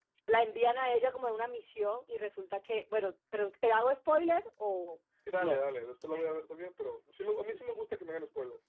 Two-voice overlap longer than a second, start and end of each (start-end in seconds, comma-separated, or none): none